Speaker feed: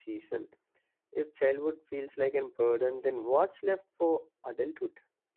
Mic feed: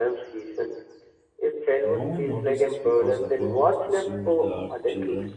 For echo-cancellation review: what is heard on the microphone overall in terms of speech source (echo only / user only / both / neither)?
both